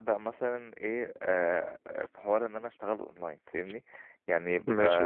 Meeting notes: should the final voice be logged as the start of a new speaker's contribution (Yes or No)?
No